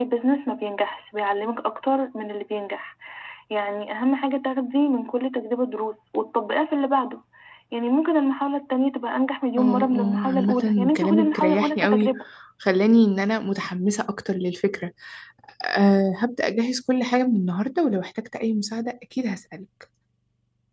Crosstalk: present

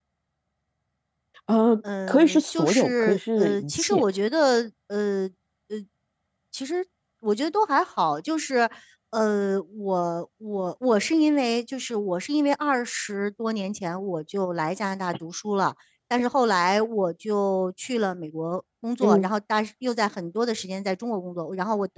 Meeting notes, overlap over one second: present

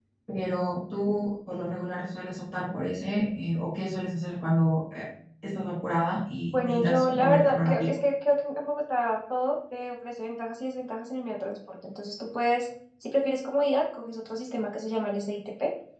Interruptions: present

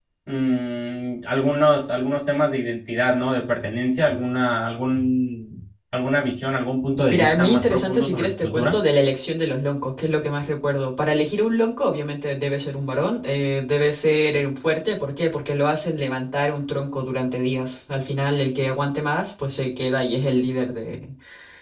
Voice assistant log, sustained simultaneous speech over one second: present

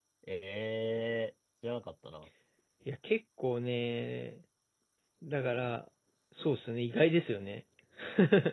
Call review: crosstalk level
none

